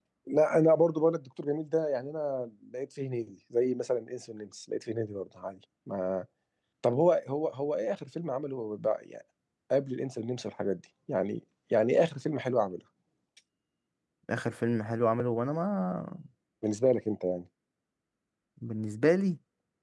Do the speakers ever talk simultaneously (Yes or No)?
No